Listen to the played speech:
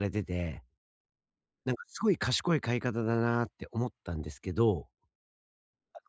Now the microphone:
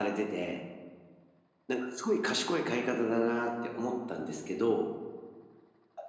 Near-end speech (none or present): none